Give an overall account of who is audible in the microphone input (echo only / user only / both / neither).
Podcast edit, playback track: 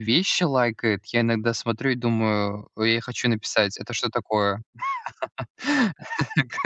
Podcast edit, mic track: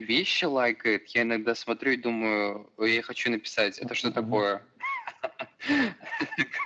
both